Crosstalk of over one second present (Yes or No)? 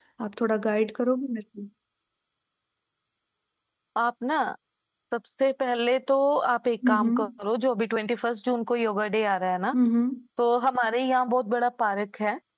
No